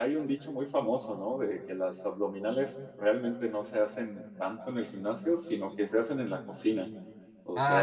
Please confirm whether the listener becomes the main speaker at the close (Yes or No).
No